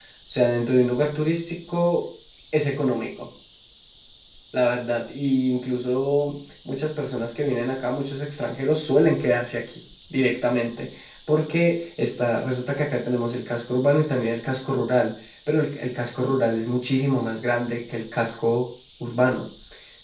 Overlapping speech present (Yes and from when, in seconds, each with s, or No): No